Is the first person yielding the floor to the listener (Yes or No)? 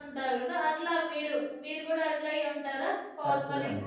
Yes